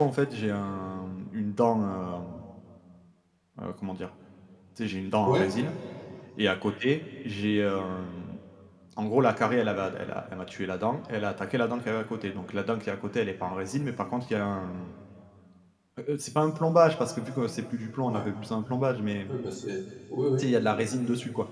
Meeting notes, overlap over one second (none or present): none